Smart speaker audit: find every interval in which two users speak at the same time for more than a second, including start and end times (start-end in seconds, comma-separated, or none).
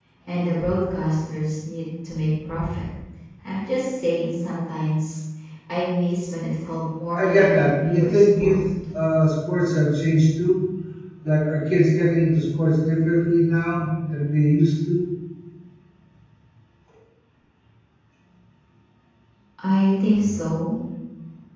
7.2-8.6